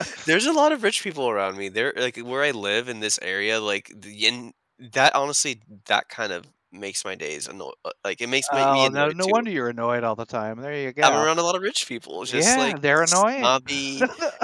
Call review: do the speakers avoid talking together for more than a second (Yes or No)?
No